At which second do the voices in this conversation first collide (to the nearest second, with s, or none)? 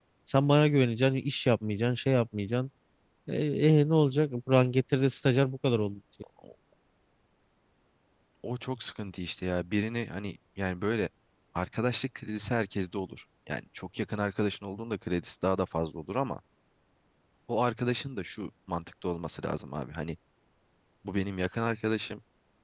none